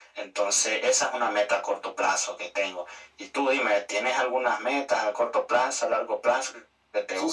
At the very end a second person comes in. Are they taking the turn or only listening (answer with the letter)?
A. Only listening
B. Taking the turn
B